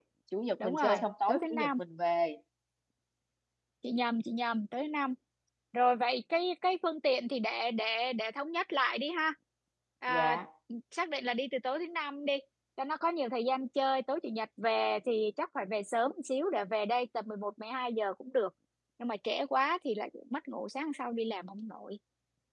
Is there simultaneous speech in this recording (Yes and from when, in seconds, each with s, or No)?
Yes, from 0.6 s